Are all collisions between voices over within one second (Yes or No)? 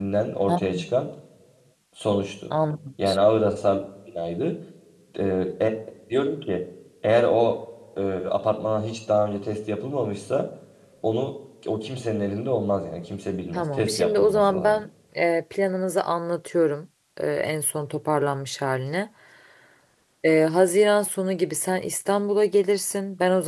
No